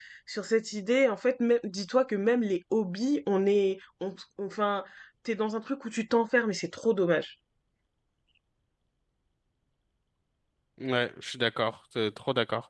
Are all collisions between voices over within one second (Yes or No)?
Yes